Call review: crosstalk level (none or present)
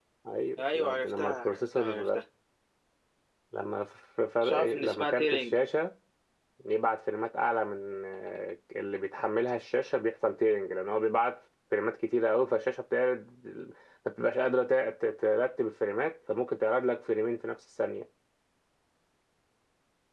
present